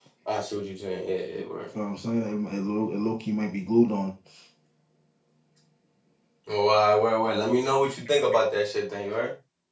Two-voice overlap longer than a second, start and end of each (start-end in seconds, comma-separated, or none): none